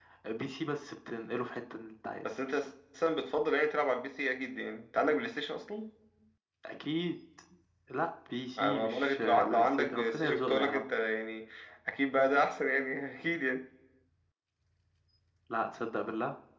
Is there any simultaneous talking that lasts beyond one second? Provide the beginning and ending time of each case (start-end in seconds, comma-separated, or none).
8.6-10.8